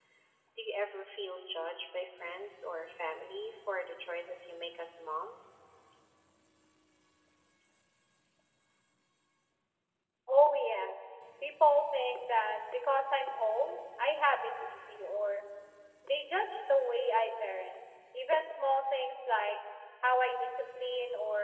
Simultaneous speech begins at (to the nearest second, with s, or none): none